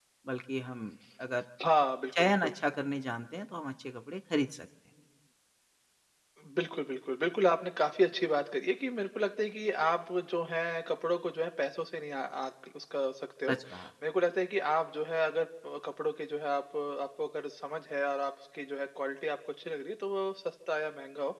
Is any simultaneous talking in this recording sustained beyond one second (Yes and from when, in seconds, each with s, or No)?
No